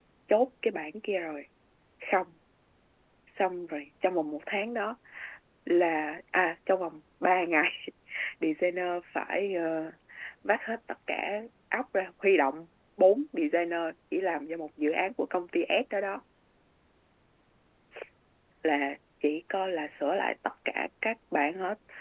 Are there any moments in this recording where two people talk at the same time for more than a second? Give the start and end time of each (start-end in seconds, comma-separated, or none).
none